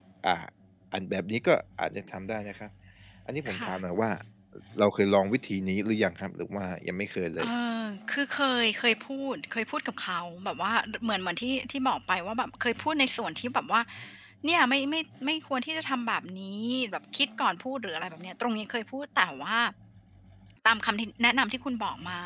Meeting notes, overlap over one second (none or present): none